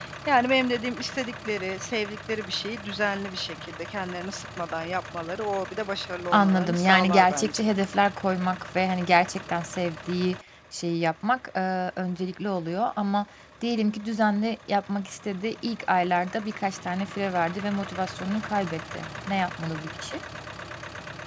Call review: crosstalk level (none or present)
present